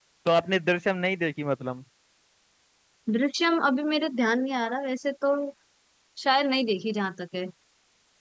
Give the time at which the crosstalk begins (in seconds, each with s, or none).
none